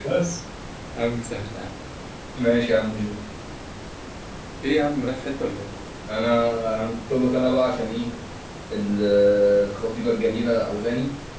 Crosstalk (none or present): none